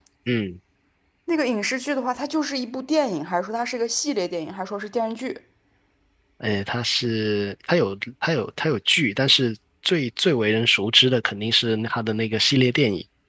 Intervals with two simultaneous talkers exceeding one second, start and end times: none

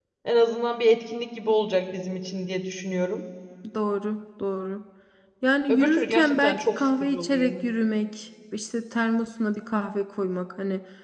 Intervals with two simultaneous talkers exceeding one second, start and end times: 5.7-7.5

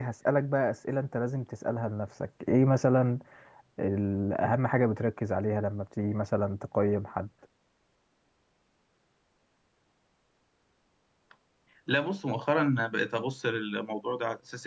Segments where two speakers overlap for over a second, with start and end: none

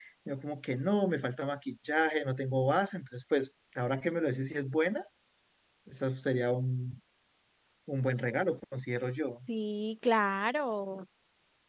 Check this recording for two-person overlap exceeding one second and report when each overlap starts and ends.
none

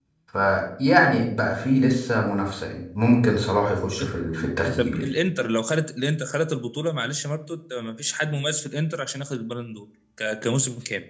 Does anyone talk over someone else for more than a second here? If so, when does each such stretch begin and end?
none

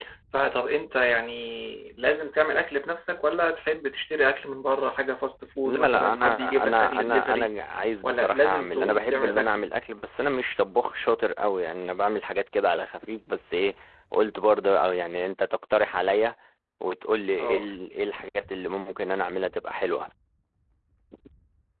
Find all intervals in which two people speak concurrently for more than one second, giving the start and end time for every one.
5.6-7.5, 8.0-9.6

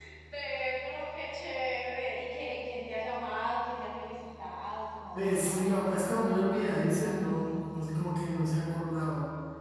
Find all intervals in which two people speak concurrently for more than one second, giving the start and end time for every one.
5.1-7.4

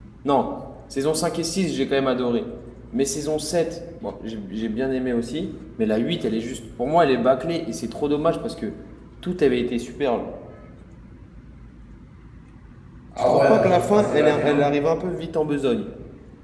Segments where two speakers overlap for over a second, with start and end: 13.2-14.6

